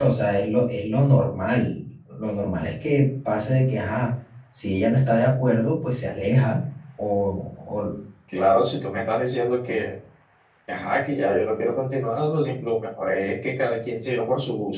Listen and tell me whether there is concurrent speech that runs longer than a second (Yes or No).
No